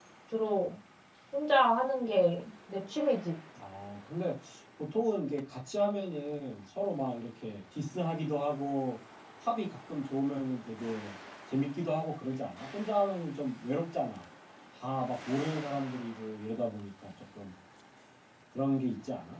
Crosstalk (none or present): none